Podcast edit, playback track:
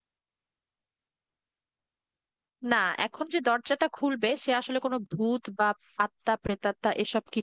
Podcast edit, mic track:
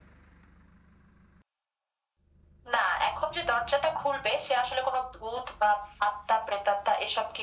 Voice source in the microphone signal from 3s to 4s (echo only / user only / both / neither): echo only